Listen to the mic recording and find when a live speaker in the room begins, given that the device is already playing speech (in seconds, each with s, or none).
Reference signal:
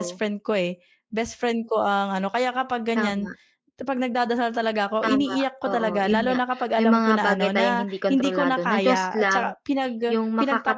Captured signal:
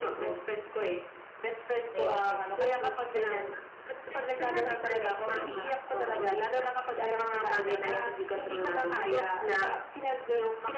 1.9 s